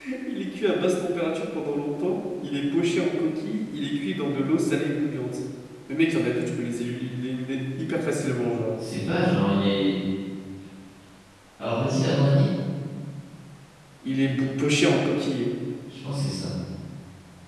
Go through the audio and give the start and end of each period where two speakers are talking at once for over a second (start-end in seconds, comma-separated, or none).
none